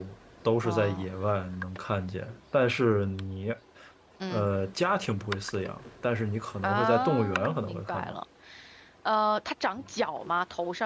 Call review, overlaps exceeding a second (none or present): present